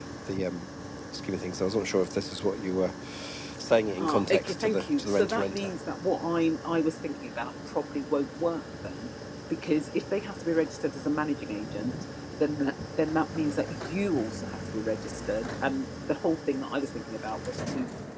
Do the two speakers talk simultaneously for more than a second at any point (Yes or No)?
Yes